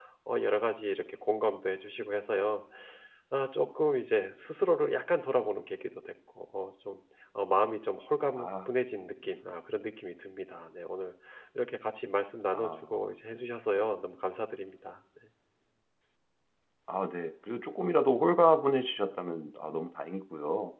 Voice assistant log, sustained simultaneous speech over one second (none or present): none